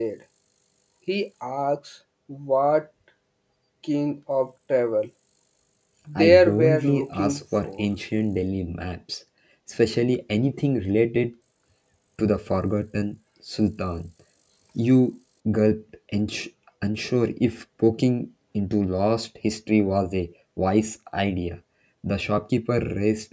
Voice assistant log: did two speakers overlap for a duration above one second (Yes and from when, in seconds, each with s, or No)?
Yes, from 6.2 s